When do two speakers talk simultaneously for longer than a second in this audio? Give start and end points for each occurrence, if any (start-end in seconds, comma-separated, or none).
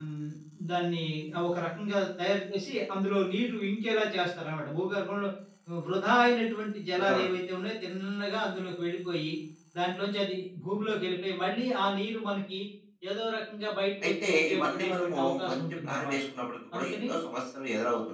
14.0-16.2